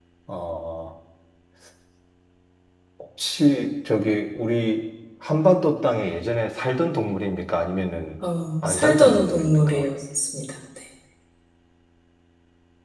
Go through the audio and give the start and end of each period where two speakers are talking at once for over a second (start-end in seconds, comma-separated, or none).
8.6-9.8